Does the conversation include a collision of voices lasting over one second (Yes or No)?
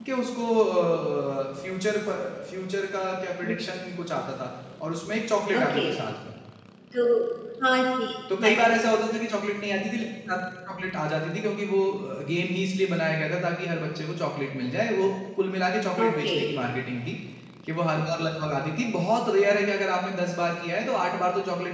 No